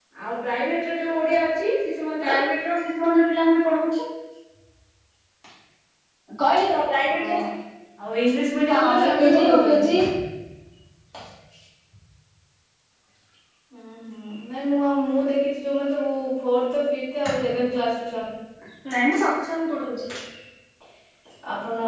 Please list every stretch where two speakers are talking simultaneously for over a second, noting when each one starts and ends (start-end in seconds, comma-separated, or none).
8.7-9.9